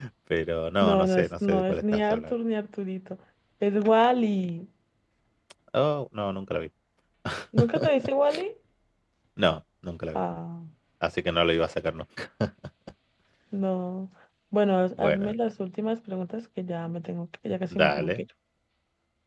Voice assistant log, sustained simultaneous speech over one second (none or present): present